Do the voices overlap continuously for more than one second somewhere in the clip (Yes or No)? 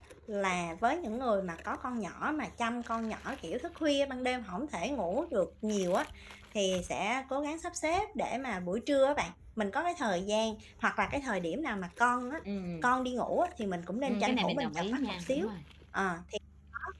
Yes